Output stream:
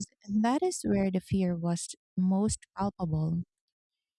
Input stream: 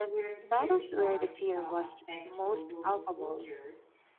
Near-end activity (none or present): present